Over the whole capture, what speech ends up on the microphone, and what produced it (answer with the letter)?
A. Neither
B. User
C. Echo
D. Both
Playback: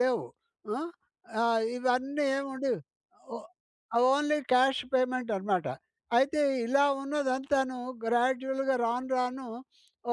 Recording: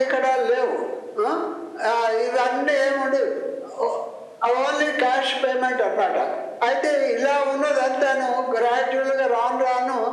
C